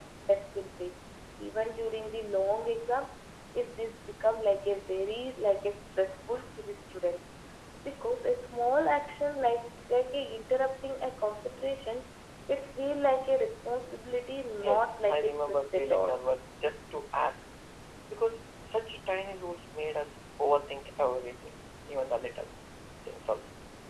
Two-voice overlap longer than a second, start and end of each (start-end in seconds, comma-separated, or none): 14.6-16.2